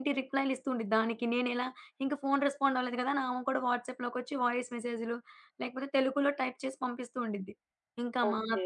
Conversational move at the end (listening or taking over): listening